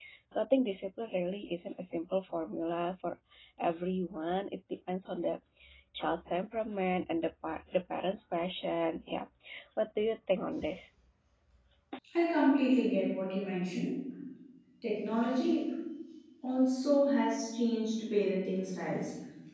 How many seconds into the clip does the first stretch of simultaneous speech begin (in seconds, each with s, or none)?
none